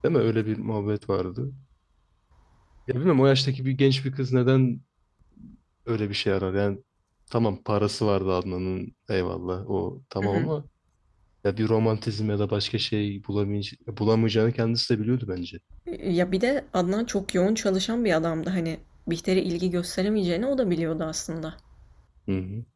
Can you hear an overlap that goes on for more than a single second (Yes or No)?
No